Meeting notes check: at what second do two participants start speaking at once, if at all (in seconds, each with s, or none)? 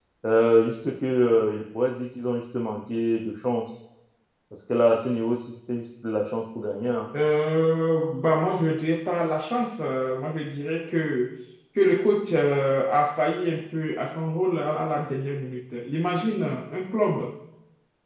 none